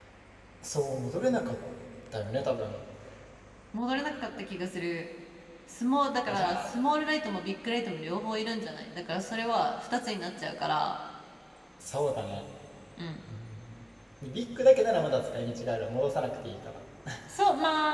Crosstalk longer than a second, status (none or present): none